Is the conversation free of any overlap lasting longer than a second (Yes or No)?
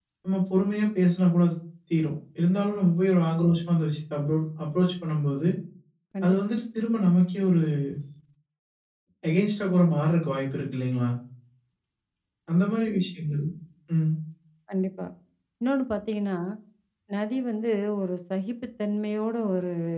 Yes